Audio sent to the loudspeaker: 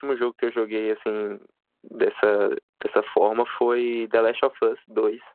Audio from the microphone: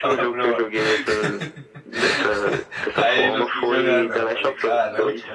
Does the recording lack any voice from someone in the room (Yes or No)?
No